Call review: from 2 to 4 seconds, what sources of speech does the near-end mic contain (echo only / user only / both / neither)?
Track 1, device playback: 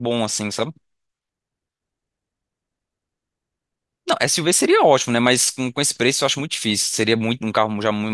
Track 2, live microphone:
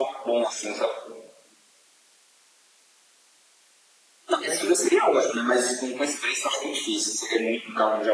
neither